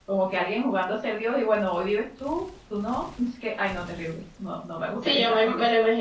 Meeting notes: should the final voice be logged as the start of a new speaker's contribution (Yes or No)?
Yes